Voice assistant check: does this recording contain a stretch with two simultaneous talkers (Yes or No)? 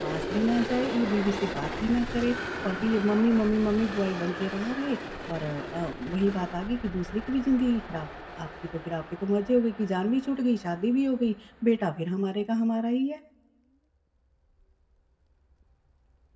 No